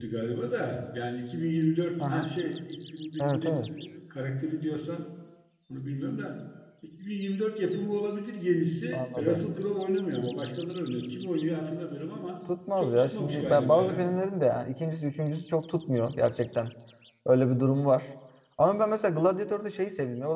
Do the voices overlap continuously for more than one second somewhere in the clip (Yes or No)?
Yes